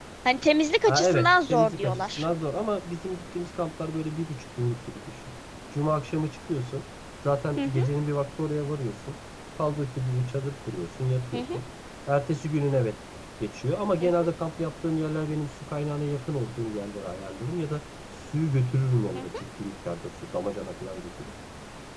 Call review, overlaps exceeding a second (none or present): present